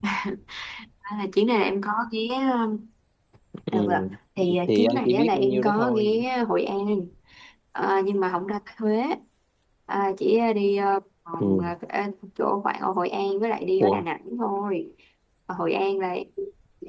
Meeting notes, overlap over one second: present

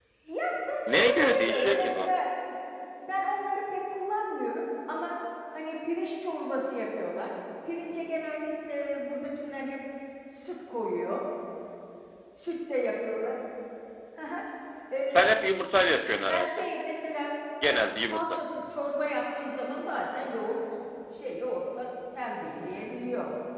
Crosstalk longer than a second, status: present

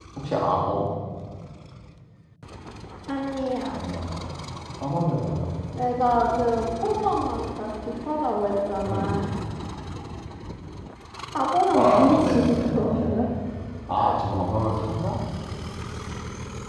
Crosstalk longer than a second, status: present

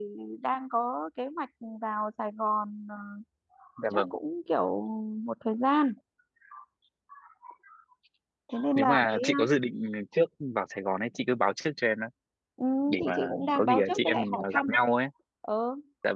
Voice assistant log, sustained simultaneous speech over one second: present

